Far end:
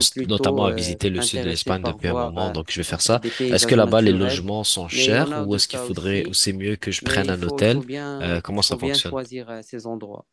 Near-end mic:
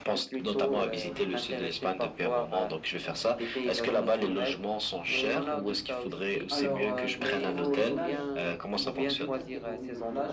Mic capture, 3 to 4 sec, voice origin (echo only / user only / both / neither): echo only